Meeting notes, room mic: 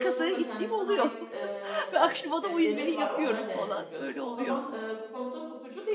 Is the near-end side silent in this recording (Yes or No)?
No